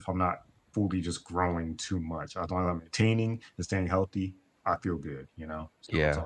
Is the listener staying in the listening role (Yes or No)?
No